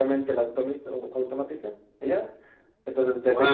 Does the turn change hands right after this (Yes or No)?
Yes